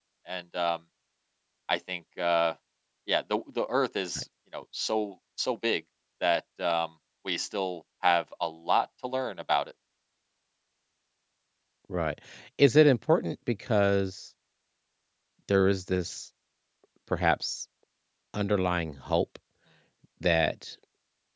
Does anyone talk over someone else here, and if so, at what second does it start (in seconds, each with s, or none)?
none